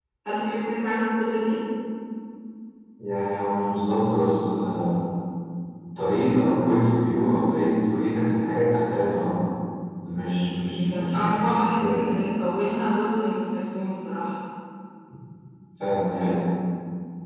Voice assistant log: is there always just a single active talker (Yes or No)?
No